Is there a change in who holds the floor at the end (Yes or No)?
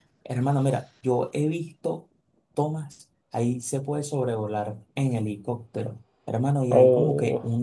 No